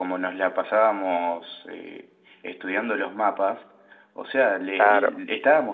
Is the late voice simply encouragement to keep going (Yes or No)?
Yes